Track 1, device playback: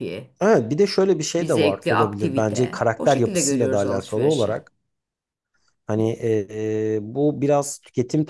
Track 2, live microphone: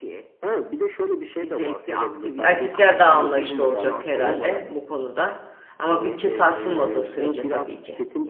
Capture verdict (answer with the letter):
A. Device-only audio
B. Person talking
B